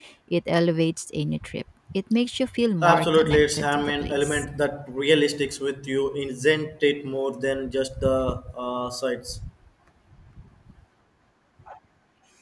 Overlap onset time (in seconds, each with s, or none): 2.8 s